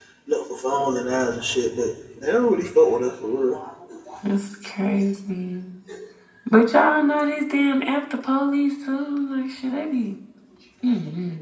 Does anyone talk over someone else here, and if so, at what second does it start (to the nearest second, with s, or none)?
none